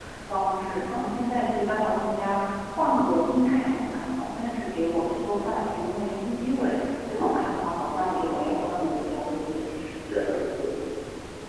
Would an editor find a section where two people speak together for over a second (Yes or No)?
Yes